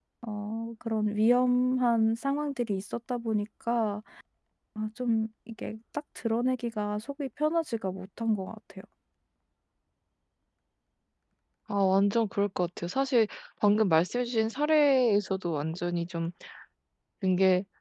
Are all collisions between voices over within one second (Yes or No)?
Yes